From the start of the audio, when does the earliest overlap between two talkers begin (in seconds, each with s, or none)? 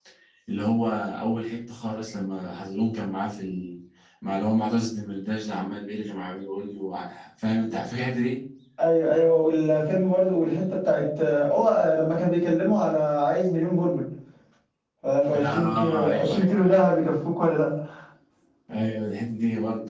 15.4 s